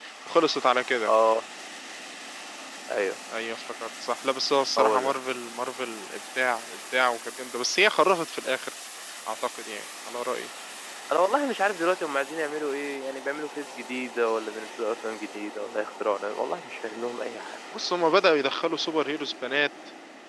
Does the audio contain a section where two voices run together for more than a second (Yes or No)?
No